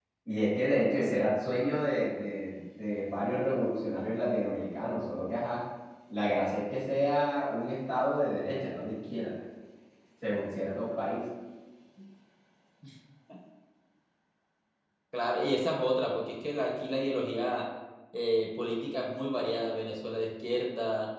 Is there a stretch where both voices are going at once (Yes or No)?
No